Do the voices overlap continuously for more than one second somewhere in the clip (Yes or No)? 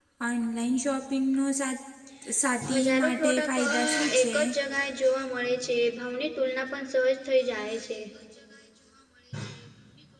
Yes